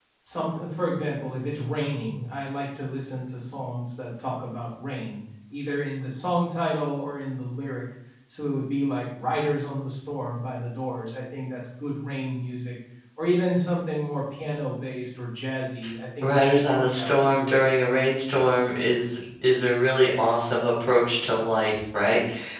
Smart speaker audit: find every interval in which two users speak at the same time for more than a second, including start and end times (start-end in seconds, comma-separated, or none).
16.2-17.5